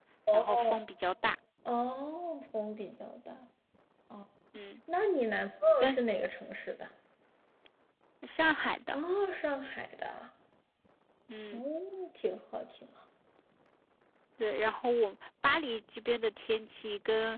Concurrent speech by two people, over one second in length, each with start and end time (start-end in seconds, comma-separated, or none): none